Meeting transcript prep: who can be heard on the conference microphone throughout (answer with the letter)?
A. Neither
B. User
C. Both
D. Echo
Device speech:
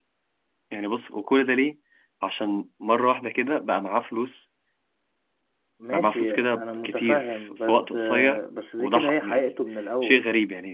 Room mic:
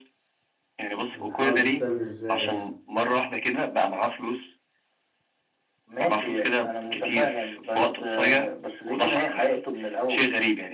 C